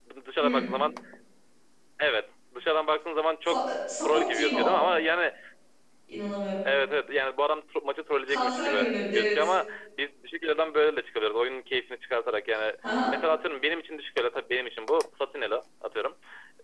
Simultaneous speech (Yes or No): Yes